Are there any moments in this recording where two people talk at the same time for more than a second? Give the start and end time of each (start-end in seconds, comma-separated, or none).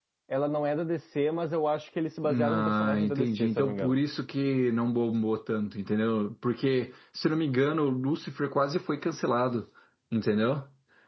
2.3-3.9